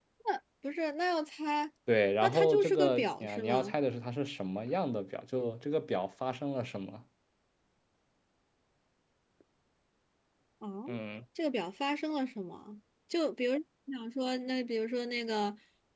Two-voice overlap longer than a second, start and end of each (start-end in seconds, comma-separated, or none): 2.2-3.8